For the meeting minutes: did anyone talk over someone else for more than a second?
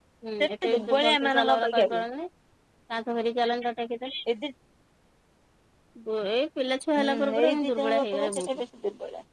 Yes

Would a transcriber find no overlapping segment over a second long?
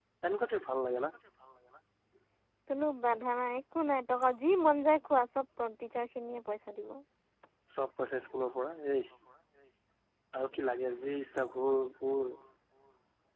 Yes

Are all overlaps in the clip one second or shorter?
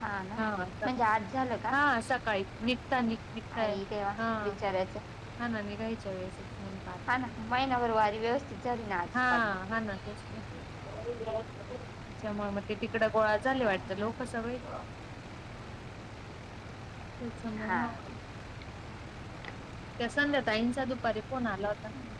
Yes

